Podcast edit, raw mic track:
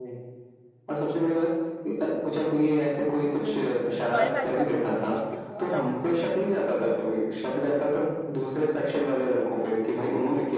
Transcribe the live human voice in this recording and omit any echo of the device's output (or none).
हम्म हमारे बैच साथ तो बहुत अच्छी थी बहुत ज्यादा अच्छी थी